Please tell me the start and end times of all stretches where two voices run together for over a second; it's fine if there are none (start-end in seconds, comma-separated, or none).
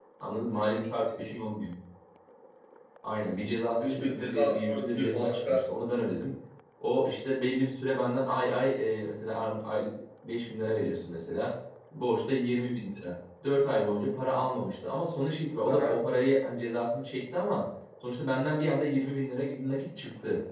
3.8-5.9